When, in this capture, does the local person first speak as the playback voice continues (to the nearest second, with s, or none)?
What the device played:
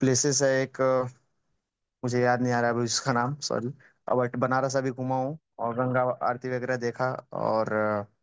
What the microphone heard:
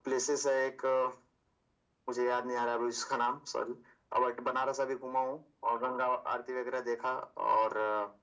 none